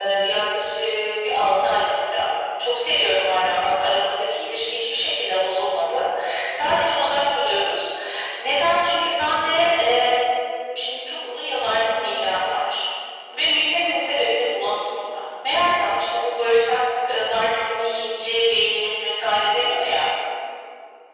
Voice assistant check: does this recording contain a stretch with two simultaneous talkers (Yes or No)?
No